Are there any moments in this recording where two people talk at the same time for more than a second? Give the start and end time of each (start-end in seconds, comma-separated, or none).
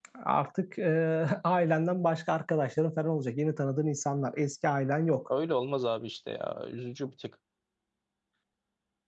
none